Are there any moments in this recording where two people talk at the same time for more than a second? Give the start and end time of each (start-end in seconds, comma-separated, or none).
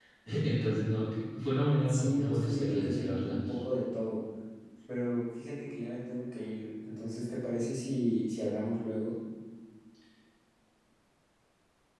1.9-3.4